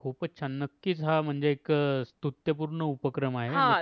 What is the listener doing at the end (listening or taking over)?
taking over